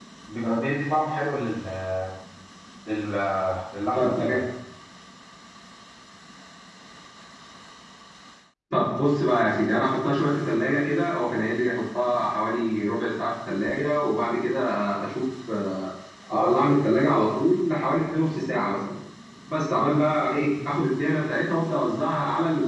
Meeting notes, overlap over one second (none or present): none